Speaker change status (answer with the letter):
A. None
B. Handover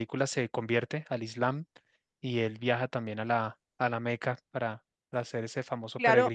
B